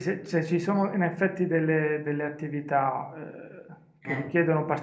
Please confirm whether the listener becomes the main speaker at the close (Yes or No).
No